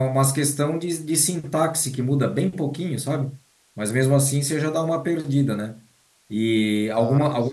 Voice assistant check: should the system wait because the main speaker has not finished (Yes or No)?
Yes